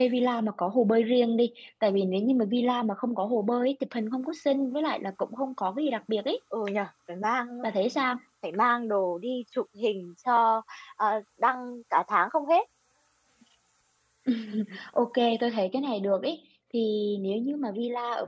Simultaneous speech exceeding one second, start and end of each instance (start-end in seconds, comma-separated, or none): none